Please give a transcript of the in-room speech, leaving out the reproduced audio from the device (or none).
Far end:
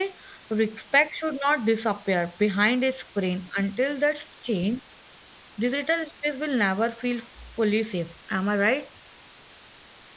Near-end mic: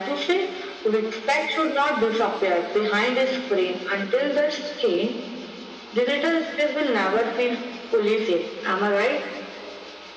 none